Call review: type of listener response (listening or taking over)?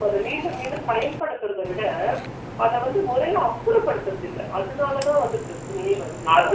taking over